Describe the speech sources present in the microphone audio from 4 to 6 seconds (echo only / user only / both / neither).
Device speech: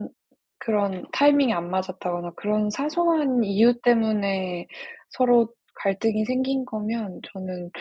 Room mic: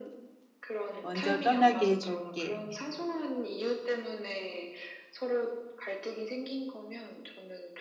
echo only